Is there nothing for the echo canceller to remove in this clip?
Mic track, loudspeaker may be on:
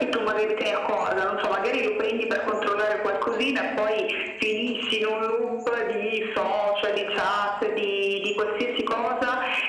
No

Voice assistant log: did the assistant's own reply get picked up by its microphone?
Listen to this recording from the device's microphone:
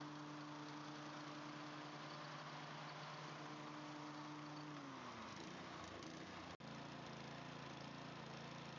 No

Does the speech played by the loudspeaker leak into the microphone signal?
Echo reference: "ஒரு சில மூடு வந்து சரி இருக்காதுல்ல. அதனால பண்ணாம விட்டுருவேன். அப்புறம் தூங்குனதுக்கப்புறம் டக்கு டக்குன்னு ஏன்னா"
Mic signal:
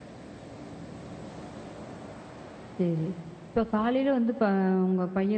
No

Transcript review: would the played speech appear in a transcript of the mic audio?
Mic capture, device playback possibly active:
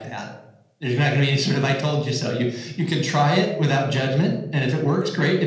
Yes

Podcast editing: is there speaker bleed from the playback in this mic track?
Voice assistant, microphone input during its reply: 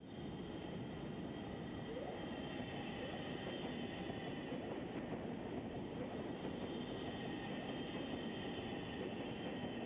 No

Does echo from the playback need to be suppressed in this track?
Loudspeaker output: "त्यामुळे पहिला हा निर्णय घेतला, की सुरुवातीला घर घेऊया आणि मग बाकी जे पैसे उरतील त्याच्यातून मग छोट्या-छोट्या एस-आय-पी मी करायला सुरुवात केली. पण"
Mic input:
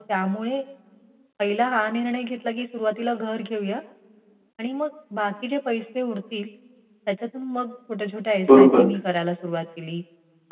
Yes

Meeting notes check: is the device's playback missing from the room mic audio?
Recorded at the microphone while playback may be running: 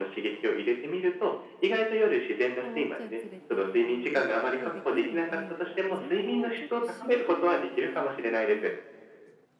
No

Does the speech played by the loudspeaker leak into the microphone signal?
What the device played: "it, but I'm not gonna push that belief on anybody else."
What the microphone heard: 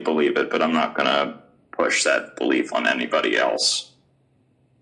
Yes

